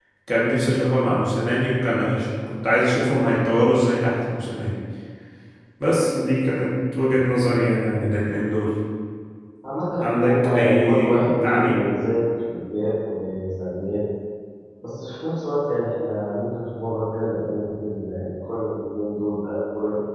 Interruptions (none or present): present